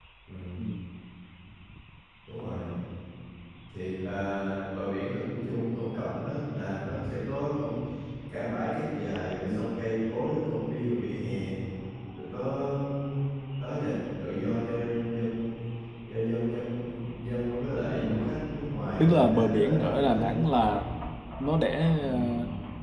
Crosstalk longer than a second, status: present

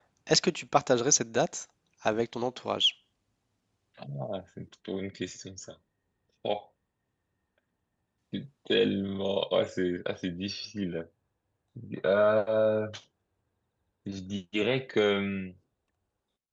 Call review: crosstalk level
none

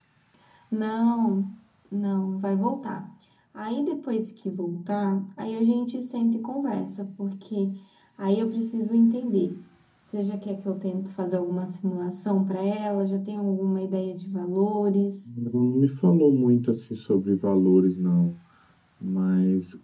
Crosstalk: none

